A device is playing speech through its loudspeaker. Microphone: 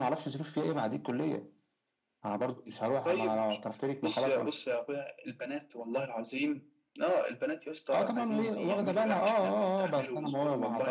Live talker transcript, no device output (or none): none